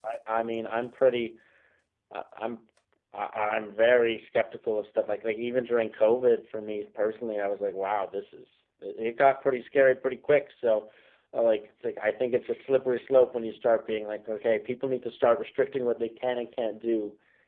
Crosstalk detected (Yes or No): No